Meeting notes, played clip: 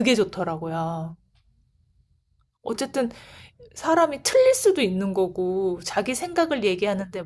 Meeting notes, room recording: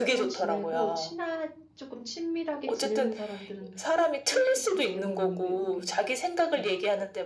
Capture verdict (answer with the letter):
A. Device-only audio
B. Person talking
B